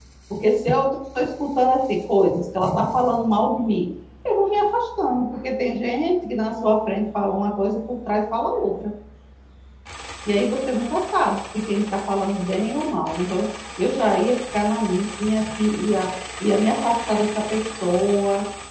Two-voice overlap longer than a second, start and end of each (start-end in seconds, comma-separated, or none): none